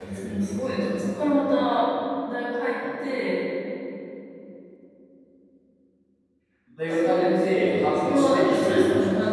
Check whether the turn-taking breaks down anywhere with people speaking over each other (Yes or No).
Yes